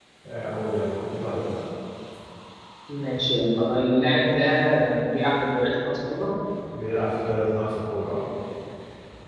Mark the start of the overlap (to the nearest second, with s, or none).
none